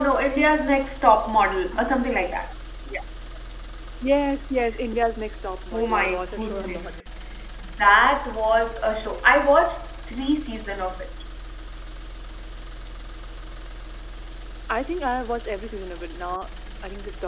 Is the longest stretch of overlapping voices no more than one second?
No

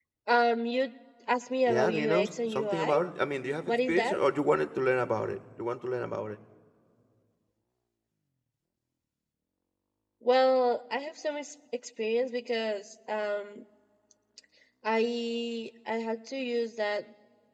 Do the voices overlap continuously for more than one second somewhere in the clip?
Yes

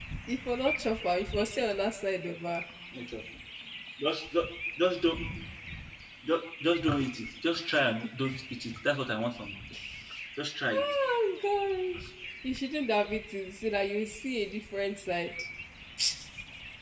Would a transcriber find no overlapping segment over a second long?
Yes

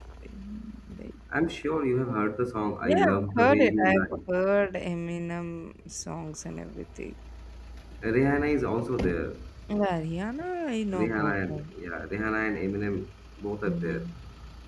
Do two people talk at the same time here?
Yes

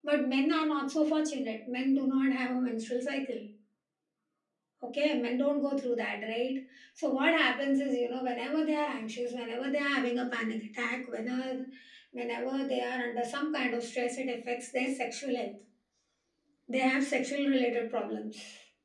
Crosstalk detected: No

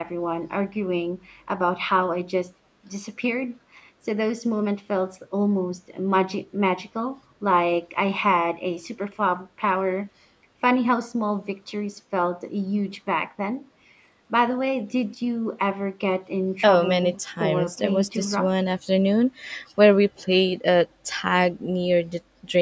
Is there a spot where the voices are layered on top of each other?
Yes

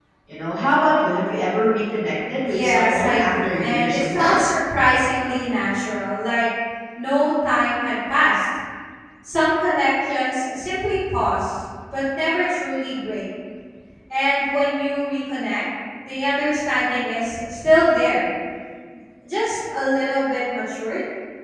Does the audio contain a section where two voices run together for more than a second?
Yes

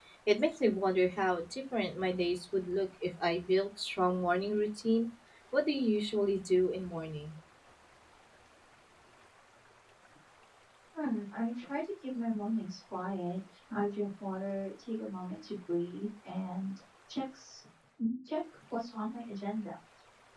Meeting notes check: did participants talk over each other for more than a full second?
No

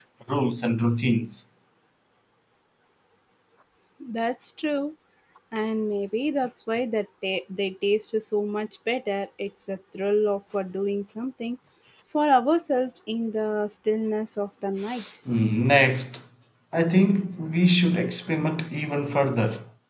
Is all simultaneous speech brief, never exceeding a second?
Yes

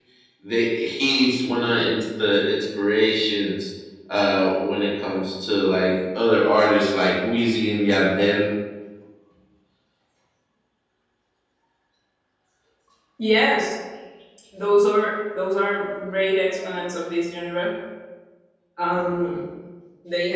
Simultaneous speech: No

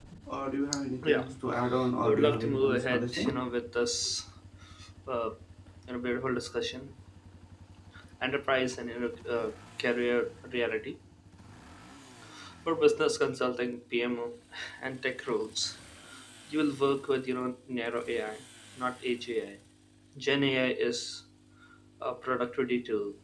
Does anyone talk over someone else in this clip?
Yes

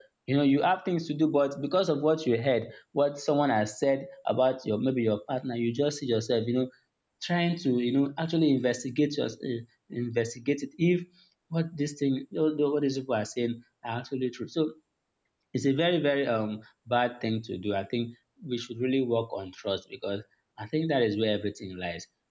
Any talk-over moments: No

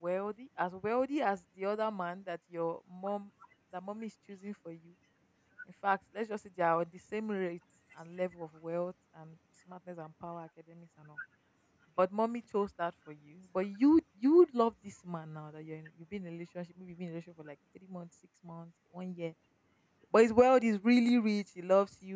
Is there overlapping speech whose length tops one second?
No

